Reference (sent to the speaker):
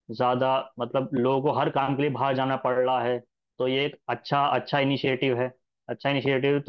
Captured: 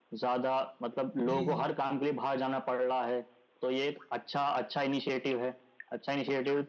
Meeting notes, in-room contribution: present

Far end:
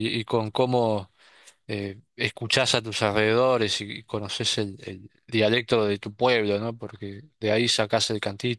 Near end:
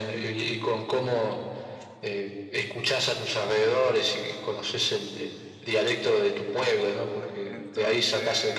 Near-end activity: present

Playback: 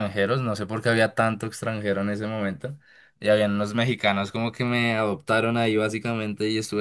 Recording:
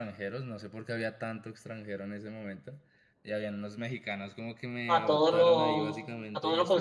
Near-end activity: present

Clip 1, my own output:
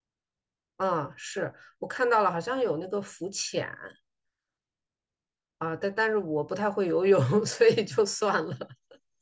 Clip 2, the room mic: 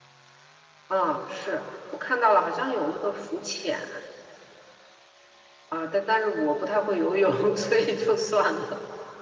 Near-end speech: none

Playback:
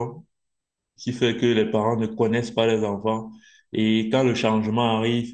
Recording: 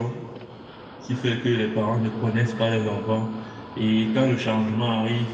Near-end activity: none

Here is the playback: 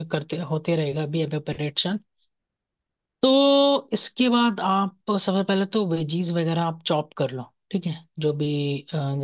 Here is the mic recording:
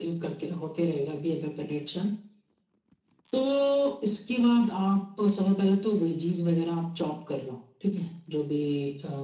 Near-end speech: none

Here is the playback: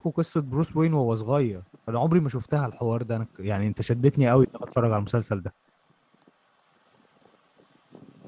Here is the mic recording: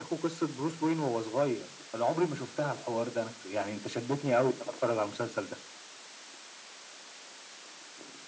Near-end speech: none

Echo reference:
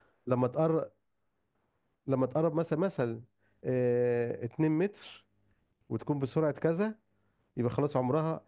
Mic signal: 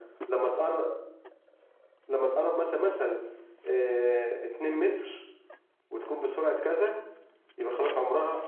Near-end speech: none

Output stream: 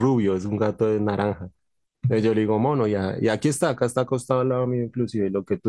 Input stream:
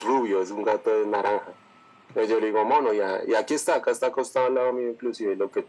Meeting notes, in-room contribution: none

